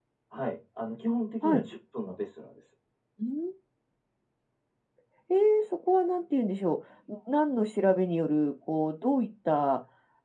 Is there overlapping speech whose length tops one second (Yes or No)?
No